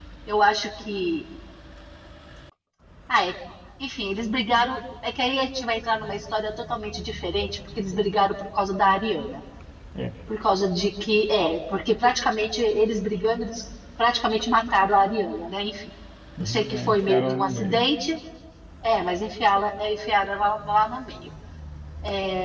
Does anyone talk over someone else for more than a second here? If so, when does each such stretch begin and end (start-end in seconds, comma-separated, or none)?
16.4-17.8